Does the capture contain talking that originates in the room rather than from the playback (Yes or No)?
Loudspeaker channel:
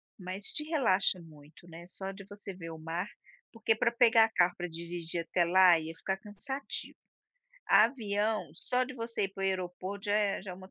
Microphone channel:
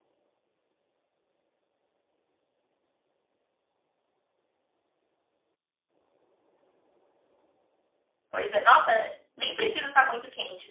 Yes